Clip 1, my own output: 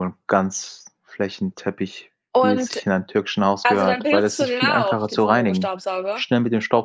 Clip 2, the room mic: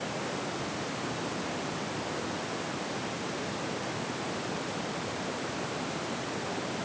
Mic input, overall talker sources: neither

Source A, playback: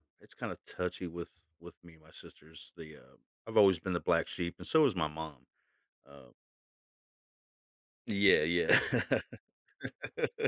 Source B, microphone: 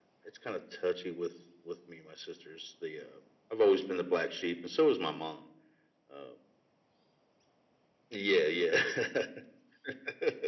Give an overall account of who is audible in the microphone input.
echo only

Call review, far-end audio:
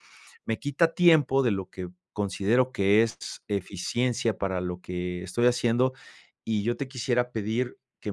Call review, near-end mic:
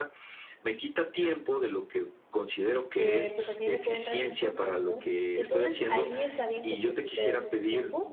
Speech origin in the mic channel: both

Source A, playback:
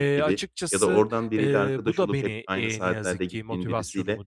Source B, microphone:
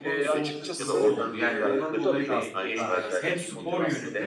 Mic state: both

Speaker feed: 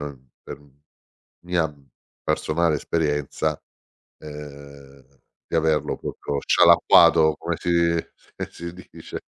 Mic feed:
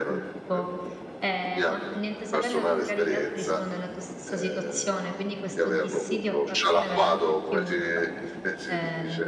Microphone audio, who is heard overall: both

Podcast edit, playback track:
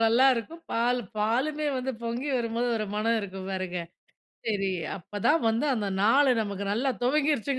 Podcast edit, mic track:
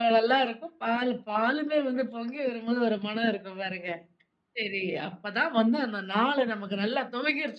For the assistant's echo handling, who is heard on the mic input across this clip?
echo only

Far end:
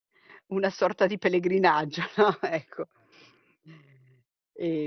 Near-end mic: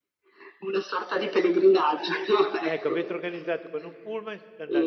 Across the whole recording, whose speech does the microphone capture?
both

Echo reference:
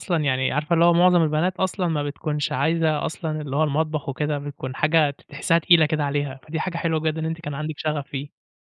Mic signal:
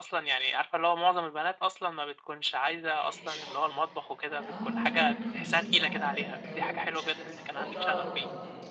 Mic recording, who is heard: both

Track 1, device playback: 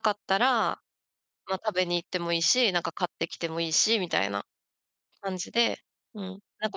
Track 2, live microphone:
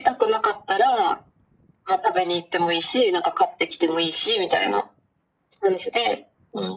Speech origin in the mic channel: echo only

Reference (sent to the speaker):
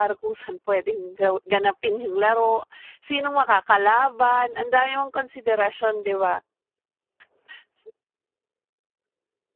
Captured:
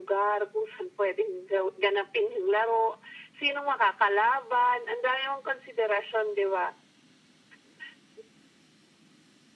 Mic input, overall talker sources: echo only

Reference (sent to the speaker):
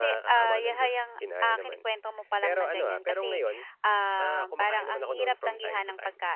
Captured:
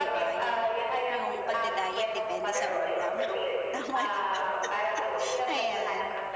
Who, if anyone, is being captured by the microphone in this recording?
both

